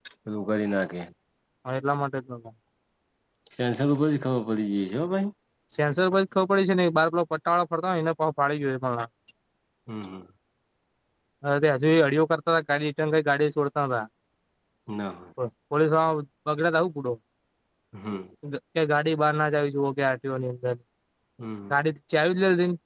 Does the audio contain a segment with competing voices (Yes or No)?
No